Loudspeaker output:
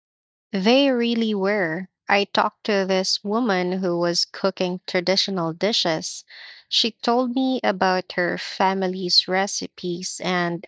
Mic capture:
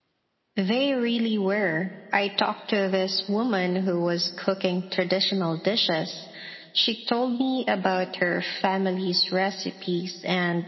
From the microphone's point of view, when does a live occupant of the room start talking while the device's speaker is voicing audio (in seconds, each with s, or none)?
none